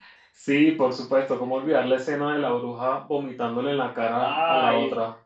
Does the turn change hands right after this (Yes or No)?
Yes